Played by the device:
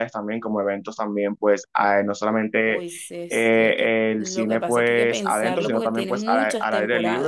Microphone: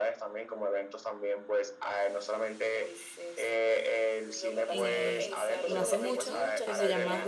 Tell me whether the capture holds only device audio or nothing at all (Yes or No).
No